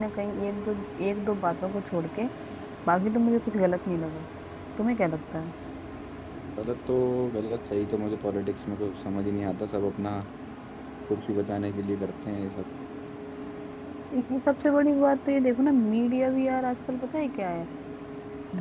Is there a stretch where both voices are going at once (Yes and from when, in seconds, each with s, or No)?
No